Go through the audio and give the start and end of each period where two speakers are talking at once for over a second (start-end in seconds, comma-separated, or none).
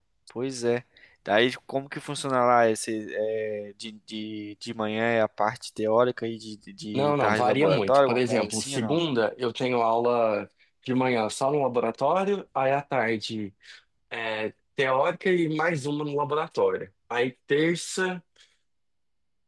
6.9-9.0